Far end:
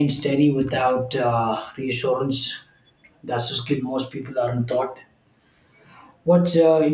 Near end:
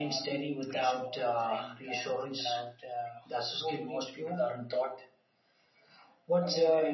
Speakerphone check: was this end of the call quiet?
No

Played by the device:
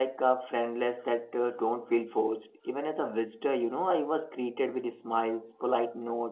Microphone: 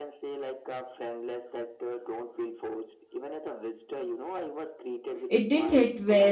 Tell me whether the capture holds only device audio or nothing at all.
No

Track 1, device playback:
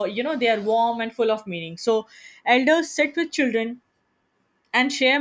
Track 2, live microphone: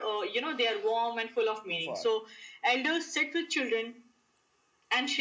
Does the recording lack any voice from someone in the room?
No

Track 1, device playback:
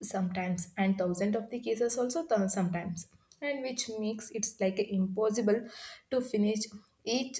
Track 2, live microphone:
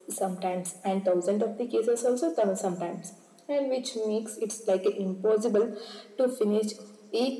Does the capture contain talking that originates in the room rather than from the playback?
No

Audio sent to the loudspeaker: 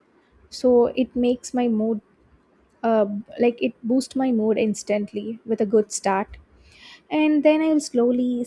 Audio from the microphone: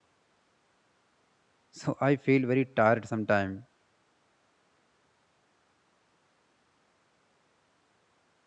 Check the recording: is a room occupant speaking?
Yes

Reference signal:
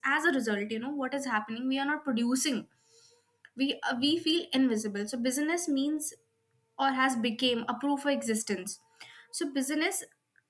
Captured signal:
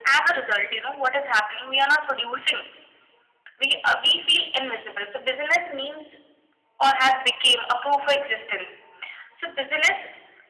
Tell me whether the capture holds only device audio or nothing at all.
Yes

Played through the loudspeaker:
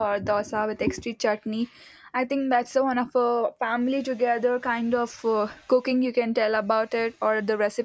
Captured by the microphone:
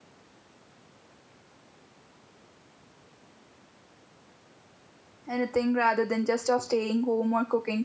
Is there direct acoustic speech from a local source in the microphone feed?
Yes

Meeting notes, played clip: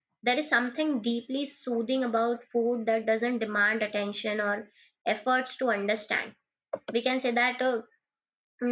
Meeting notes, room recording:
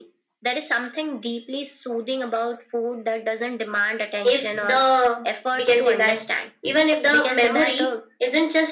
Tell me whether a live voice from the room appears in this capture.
Yes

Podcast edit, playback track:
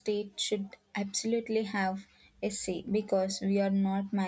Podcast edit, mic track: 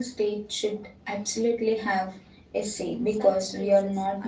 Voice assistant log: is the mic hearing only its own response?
No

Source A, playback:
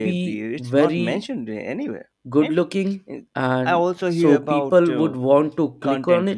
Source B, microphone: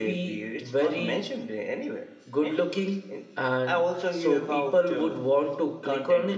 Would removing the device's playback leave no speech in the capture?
Yes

